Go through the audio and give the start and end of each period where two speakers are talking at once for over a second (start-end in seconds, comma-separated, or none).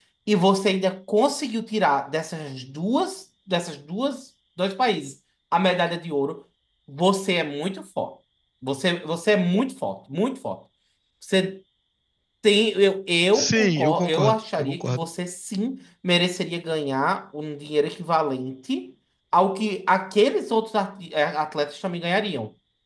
13.3-15.0